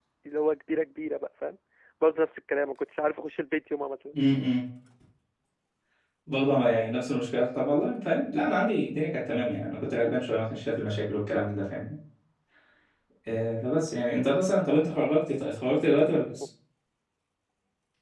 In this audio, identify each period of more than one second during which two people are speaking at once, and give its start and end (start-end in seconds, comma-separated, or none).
none